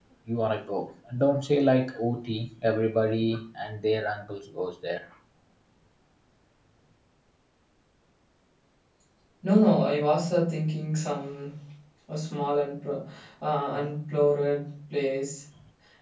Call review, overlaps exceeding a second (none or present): none